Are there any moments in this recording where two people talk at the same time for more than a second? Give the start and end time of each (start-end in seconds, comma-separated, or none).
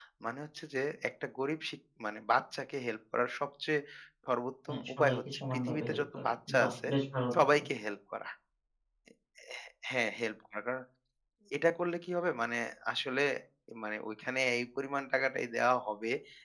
4.7-6.9